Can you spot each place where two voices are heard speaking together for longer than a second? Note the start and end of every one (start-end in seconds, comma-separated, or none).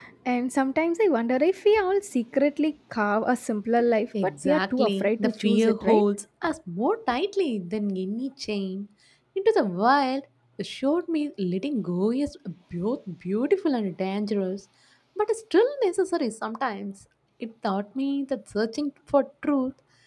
4.2-6.0